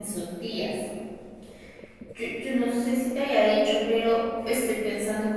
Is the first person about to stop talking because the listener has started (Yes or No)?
No